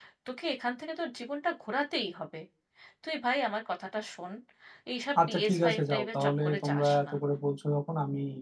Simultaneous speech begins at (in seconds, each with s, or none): 5.3 s